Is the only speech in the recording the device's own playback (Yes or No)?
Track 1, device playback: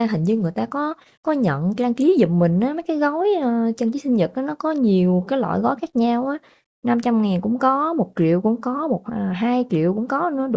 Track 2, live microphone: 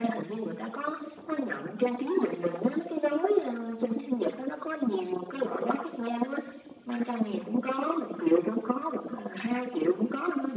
Yes